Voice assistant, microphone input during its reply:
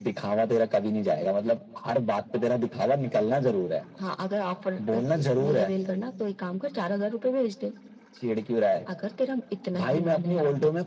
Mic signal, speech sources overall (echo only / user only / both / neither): echo only